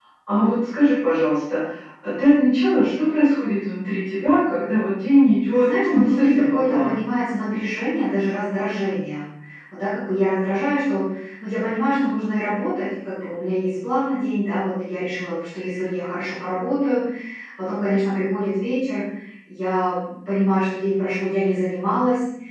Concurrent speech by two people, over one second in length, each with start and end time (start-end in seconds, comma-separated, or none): 5.5-7.0